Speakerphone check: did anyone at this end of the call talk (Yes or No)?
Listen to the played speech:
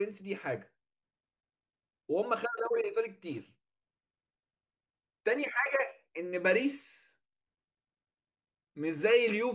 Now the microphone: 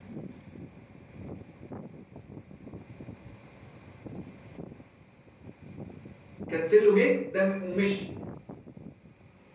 Yes